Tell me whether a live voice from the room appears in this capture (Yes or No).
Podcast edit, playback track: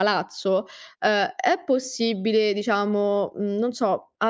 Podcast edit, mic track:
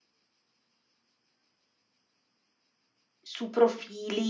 Yes